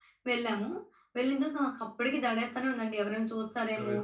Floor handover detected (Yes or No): Yes